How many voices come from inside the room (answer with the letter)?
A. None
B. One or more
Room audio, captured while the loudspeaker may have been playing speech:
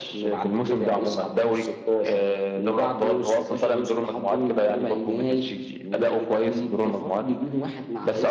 A